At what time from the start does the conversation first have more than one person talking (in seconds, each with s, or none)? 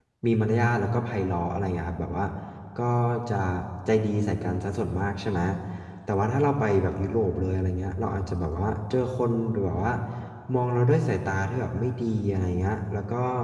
none